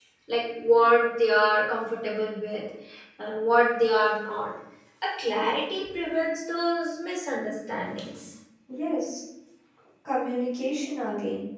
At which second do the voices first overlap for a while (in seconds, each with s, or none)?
none